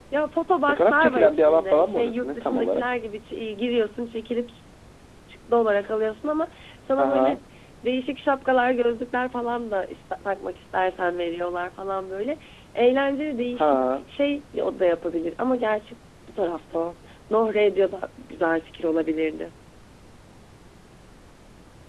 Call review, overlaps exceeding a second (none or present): present